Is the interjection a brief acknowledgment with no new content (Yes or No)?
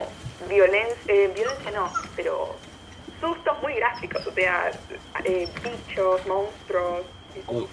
No